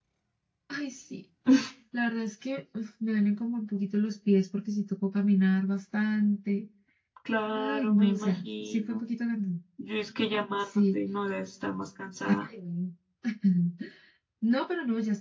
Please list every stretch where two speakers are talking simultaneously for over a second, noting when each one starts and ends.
7.5-9.0

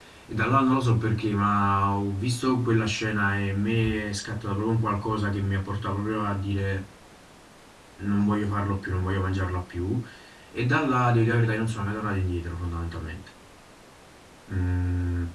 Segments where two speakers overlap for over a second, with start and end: none

